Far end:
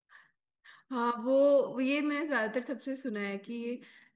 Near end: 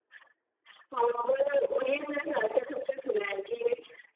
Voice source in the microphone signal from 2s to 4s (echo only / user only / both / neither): echo only